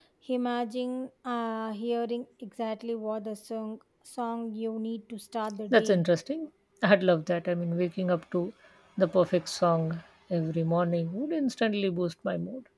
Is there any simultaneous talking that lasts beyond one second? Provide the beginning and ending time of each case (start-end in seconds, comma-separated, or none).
none